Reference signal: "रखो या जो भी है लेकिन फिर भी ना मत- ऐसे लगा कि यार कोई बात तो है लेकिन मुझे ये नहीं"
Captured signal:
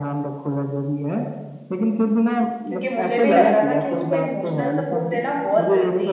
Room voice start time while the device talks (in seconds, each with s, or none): 2.7 s